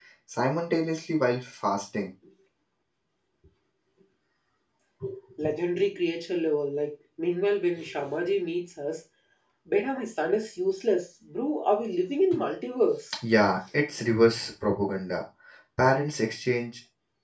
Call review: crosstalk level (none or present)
none